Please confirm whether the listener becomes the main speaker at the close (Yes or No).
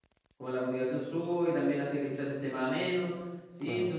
No